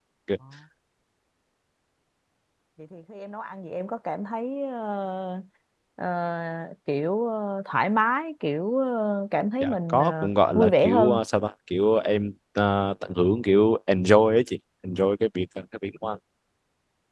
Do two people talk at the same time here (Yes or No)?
Yes